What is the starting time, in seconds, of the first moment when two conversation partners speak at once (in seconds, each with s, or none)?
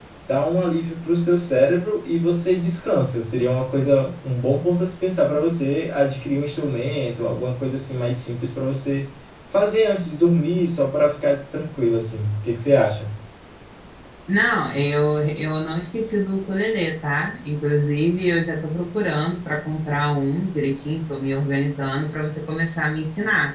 none